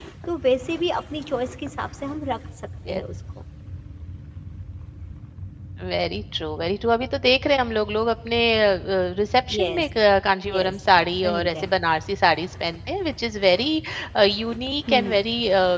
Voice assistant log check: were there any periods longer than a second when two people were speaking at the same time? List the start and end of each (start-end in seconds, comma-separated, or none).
none